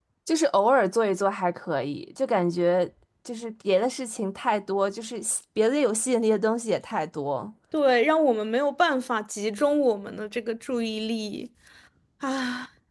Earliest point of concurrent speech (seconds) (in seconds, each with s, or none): none